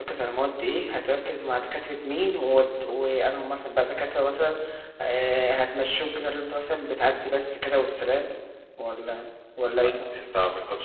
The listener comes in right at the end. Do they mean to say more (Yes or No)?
Yes